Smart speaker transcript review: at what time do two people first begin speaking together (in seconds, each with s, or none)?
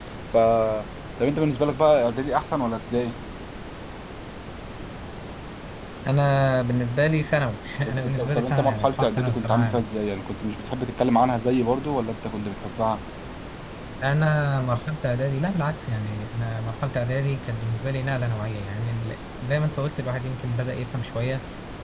7.8 s